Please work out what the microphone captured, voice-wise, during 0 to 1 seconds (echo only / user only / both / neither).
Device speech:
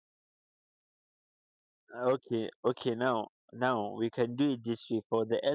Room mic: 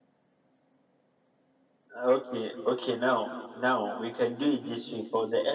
neither